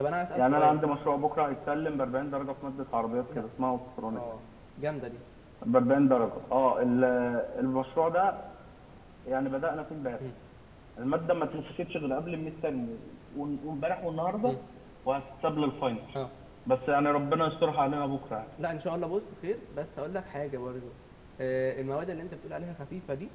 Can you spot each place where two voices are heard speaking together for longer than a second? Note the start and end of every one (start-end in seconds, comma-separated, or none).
none